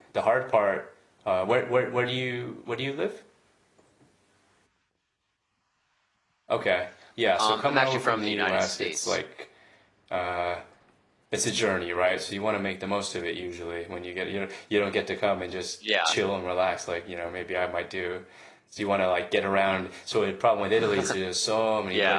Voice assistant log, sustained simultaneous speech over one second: present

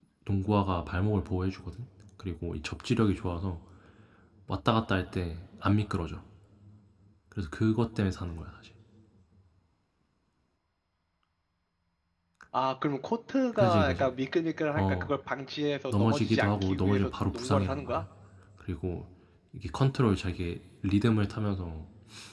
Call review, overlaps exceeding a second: present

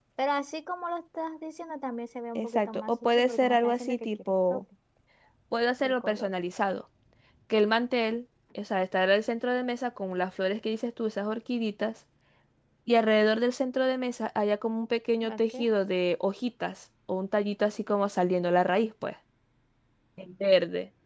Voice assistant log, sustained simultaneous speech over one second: present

